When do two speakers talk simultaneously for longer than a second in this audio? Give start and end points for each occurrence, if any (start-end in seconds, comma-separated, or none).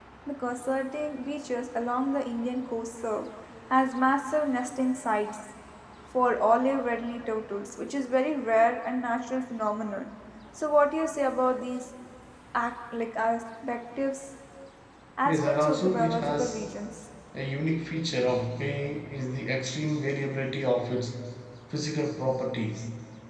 15.2-16.6